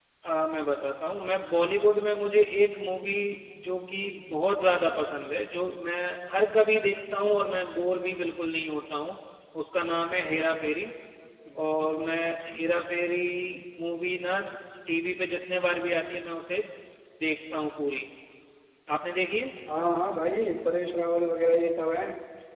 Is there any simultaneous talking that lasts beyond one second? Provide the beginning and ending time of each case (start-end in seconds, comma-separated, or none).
none